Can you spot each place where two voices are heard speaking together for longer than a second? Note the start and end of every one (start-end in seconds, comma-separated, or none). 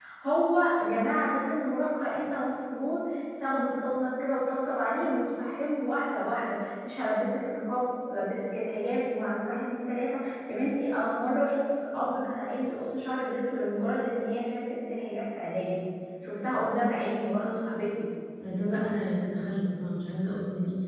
none